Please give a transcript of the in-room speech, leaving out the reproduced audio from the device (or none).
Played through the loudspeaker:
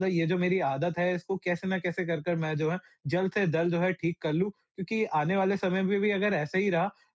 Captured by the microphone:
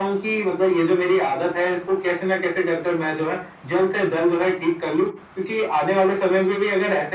none